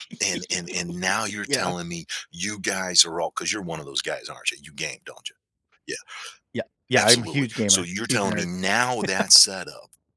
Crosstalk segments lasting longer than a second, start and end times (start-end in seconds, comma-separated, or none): 7.0-8.5